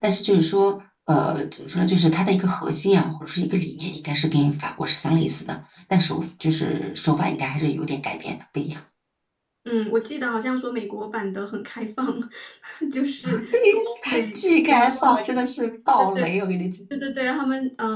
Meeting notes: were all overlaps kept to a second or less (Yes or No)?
No